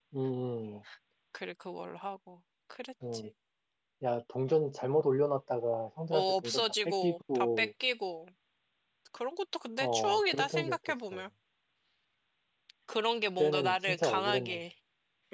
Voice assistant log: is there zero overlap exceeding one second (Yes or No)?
No